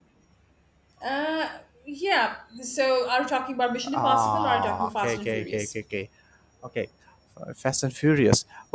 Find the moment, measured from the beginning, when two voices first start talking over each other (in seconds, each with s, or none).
3.9 s